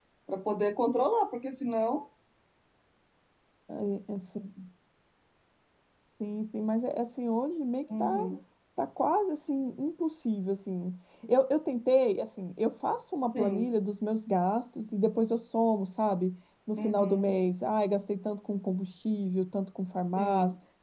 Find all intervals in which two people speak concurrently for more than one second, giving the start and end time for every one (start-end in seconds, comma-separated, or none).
none